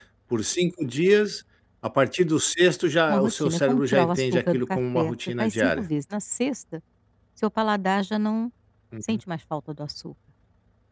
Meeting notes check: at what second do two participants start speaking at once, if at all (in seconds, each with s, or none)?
3.1 s